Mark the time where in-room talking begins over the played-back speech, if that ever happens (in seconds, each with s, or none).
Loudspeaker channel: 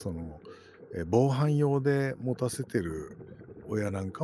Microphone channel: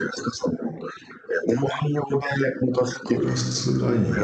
3.0 s